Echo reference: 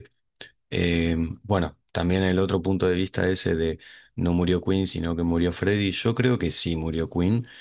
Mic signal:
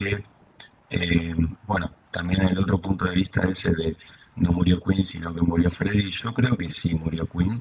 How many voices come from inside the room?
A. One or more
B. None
B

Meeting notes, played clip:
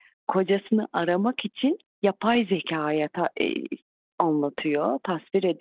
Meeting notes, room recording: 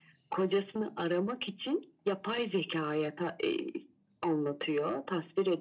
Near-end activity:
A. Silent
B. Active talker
A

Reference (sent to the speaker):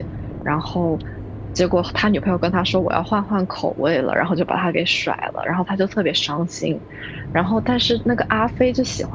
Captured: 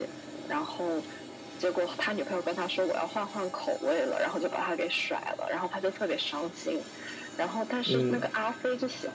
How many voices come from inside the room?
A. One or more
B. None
A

